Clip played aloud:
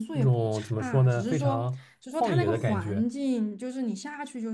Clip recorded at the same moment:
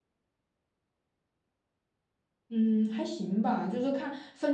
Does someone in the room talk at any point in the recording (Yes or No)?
Yes